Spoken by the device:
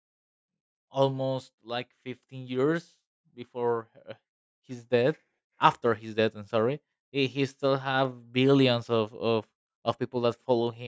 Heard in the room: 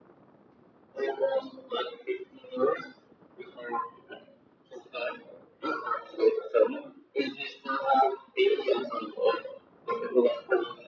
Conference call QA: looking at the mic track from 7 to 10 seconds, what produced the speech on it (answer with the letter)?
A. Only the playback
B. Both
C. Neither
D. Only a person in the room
A